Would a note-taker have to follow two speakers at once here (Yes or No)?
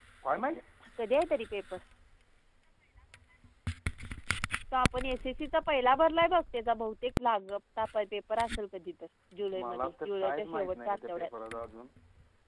Yes